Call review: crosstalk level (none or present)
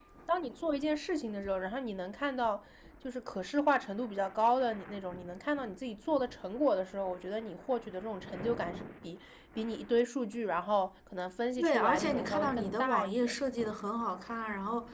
present